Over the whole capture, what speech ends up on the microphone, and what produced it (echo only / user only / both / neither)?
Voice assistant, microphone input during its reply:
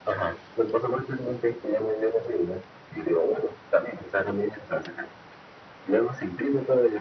echo only